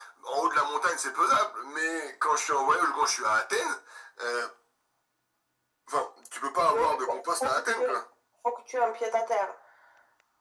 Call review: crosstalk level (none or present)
present